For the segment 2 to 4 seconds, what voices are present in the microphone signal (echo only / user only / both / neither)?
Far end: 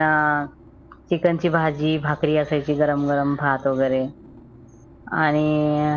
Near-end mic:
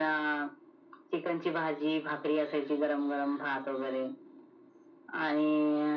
echo only